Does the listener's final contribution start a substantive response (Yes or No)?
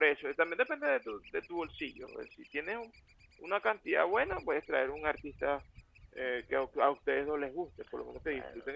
Yes